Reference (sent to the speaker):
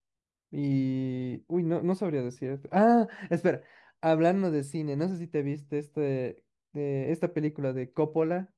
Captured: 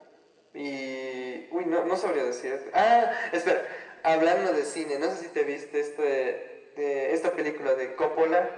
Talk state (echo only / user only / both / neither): echo only